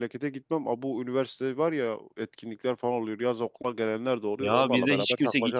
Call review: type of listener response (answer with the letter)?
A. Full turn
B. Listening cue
A